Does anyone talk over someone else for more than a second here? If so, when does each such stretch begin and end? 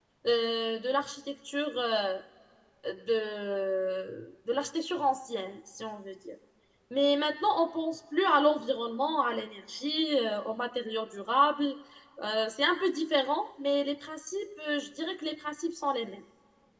none

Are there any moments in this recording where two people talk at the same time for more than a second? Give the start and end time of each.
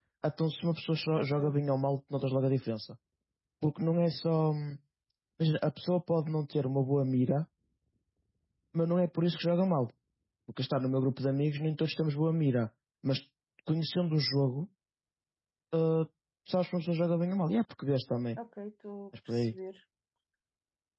none

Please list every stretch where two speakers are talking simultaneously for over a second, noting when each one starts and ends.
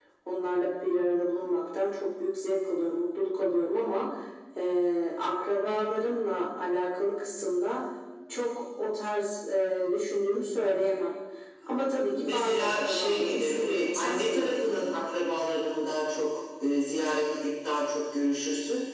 12.1-14.8

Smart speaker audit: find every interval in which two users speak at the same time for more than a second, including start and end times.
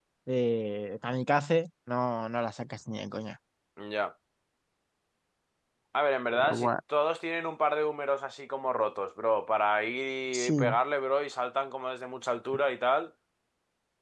none

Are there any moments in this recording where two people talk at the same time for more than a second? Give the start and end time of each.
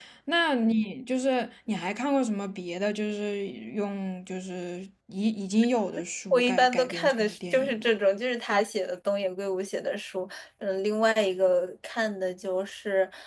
6.3-7.9

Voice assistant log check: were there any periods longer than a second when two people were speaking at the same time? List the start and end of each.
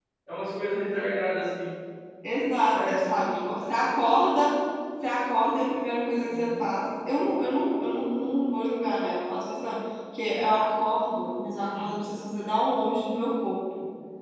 none

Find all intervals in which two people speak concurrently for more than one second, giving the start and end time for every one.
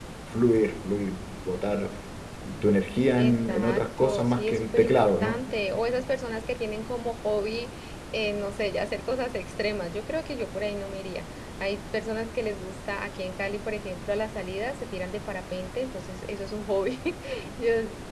3.2-5.4

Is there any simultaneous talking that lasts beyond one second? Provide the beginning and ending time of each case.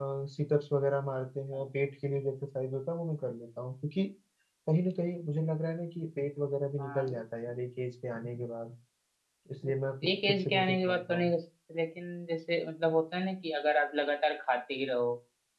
10.1-11.3

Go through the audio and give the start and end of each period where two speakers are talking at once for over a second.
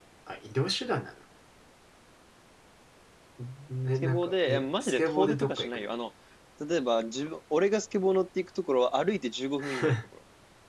4.0-5.9

